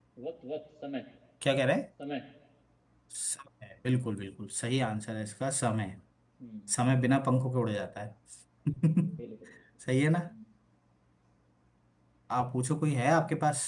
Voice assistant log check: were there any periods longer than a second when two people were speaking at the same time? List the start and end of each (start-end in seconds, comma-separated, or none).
none